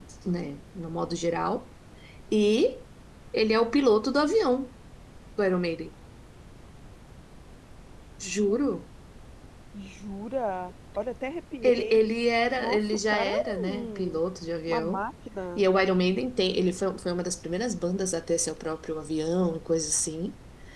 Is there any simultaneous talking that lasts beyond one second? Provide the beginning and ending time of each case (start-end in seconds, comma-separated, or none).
12.6-14.2